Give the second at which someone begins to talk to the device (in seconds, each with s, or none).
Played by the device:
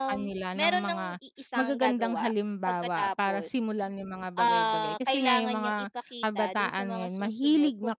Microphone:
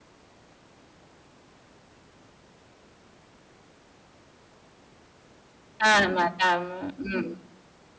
5.8 s